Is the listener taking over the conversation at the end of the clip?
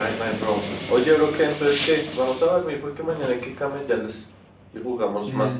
Yes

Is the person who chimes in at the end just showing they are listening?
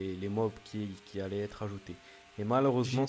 Yes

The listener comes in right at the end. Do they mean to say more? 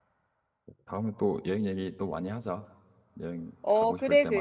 Yes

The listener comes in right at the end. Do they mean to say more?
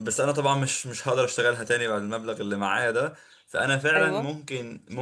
No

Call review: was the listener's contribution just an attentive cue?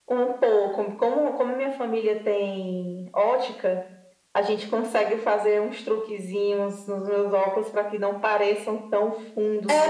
No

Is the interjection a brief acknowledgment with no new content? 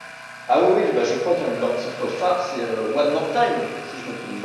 No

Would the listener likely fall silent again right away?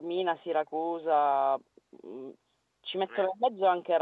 Yes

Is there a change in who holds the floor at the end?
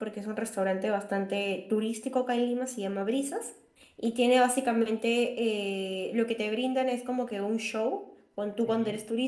No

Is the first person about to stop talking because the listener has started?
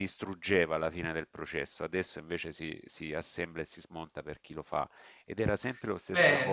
Yes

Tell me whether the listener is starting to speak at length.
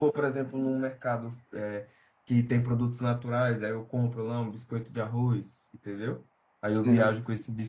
No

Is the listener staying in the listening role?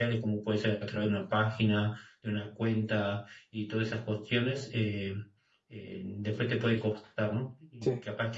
Yes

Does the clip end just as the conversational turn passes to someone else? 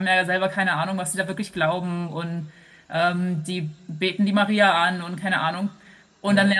No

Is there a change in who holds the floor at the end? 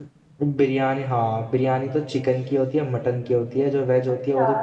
Yes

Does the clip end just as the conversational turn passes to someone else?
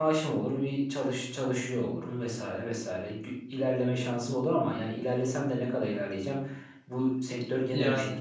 No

